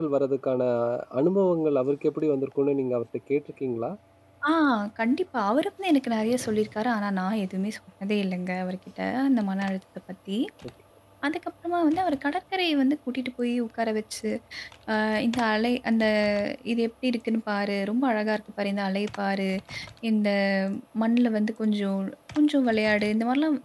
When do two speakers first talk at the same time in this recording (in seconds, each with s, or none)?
none